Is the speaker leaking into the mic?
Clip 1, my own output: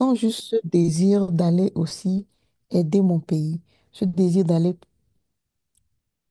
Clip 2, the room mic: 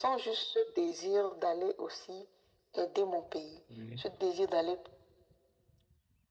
Yes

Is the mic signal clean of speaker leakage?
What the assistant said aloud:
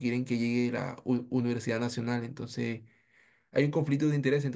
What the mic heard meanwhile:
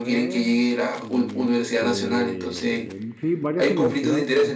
No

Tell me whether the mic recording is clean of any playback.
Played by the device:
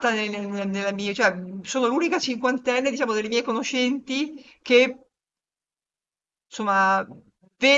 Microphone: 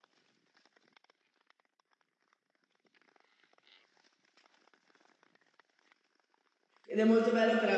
Yes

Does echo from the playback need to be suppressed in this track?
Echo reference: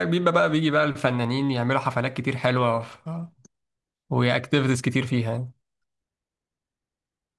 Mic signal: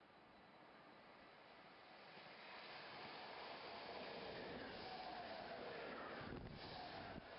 No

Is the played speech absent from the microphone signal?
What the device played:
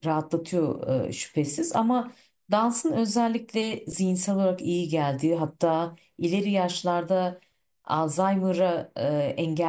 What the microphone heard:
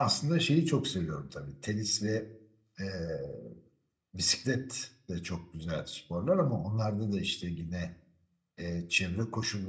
Yes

